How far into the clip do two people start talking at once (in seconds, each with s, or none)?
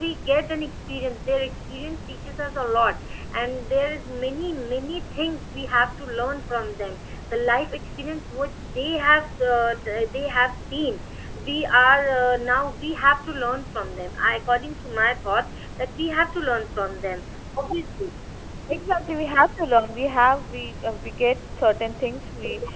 none